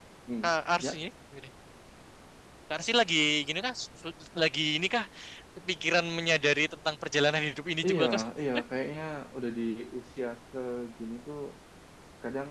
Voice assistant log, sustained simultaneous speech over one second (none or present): none